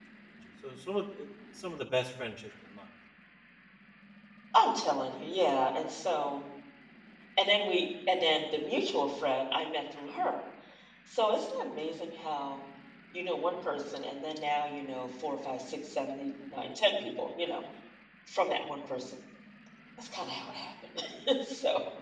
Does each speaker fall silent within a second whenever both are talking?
Yes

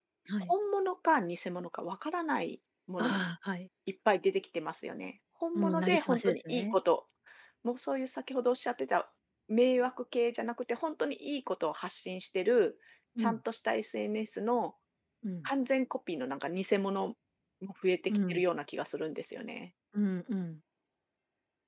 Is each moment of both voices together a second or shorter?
No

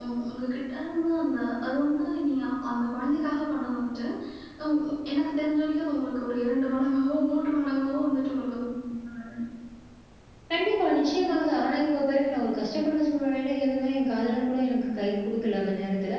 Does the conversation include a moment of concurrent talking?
No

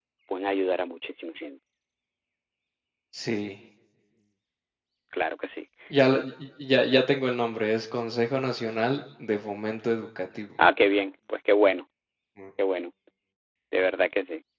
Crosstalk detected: No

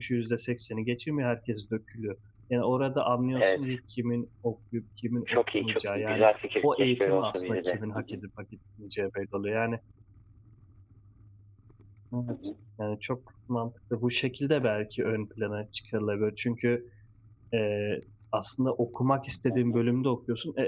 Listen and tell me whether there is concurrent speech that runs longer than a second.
Yes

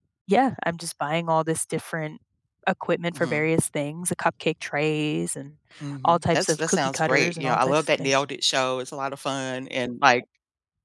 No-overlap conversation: No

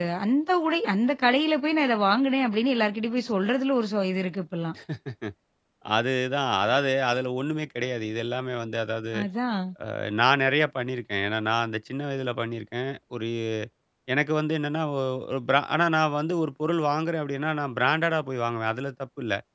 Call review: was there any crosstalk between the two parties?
No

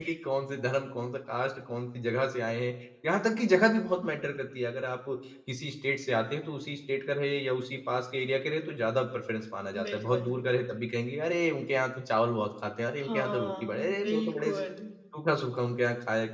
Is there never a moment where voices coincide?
No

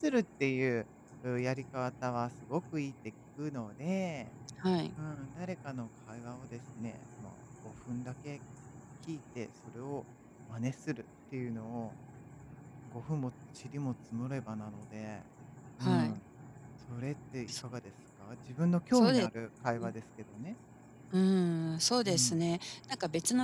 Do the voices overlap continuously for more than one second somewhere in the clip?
No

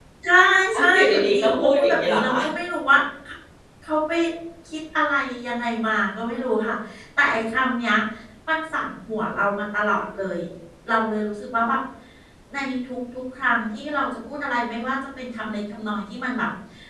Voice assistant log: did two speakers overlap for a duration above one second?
Yes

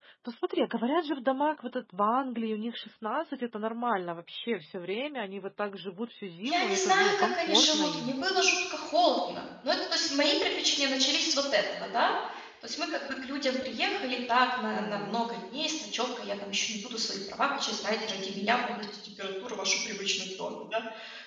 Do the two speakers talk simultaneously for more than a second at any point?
Yes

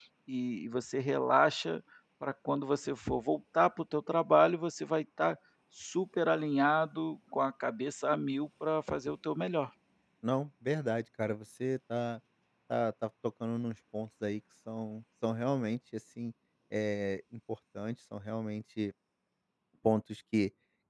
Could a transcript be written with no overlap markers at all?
Yes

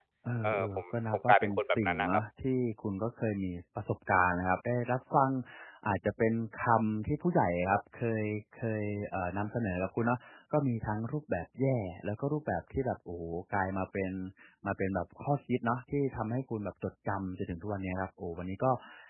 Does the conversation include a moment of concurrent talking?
Yes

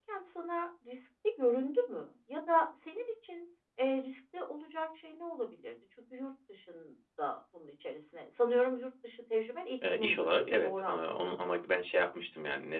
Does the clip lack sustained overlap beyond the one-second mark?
No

